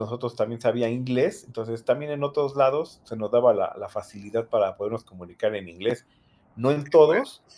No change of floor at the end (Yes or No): Yes